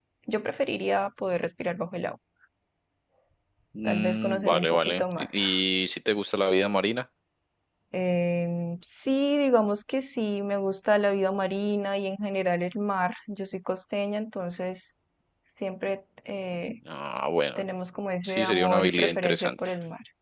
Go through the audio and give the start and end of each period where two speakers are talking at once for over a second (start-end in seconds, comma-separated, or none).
3.9-5.3, 18.2-19.7